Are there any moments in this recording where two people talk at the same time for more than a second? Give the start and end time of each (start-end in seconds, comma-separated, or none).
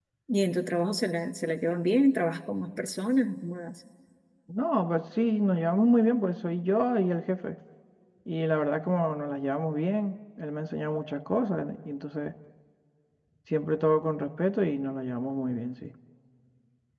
none